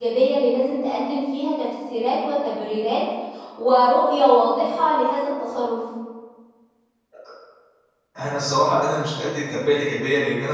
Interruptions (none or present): none